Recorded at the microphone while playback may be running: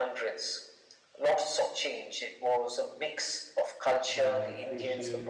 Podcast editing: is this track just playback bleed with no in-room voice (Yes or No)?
No